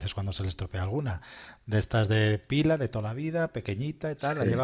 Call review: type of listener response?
listening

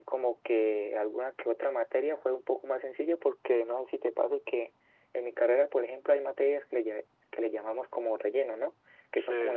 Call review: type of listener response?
listening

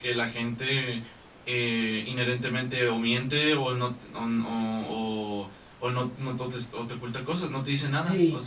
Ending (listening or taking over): taking over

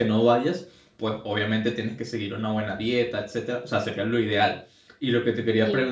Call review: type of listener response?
listening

